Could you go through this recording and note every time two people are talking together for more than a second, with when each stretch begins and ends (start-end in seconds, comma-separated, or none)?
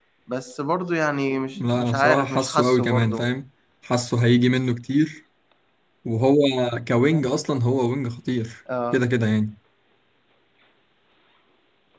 1.6-3.3